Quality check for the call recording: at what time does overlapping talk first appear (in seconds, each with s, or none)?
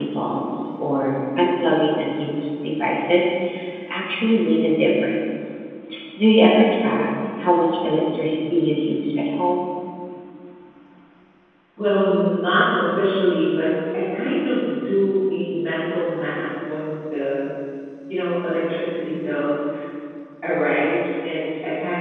none